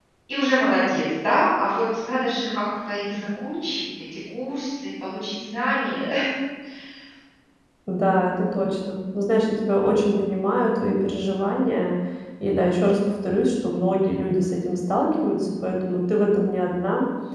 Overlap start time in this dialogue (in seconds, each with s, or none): none